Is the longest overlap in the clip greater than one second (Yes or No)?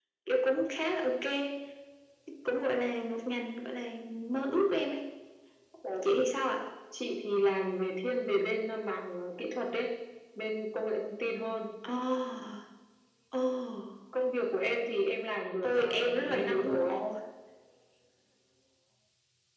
Yes